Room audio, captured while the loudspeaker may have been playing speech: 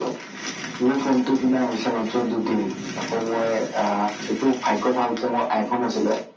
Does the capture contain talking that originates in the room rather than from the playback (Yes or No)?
No